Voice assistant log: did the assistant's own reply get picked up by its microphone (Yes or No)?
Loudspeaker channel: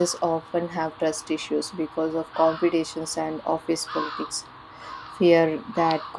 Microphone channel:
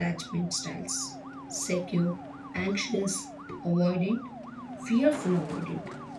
No